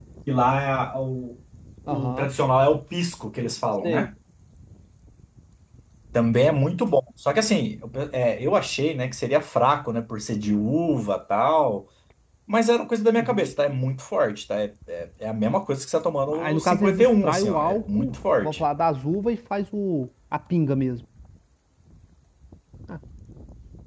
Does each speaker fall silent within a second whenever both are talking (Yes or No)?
No